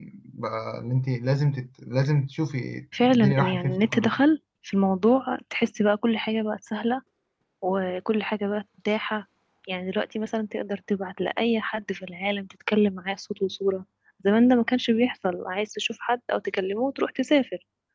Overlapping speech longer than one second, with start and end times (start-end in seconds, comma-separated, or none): 3.0-4.2